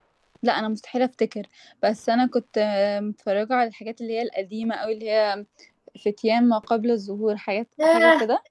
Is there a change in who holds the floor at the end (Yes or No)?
Yes